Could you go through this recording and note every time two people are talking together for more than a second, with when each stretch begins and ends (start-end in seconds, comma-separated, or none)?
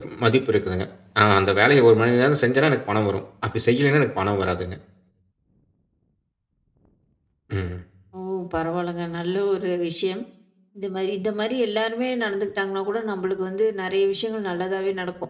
none